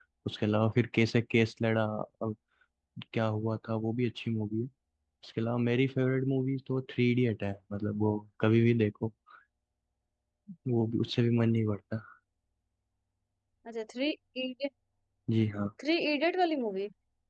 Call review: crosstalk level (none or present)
none